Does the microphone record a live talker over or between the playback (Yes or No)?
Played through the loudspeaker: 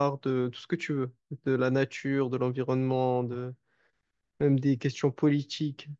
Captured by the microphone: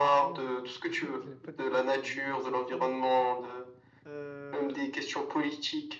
Yes